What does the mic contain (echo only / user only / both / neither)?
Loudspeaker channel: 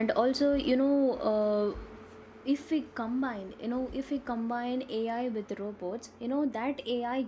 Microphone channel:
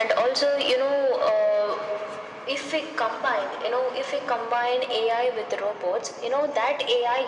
echo only